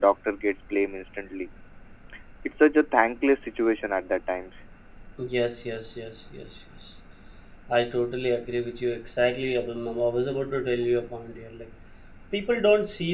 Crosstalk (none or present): none